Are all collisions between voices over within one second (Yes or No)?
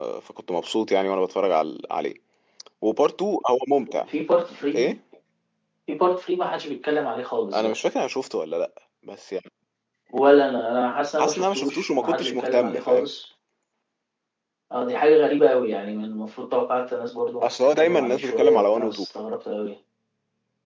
No